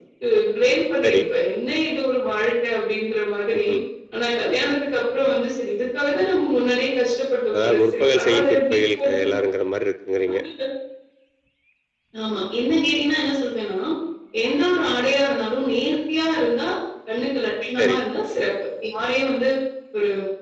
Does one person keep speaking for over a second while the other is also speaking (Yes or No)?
Yes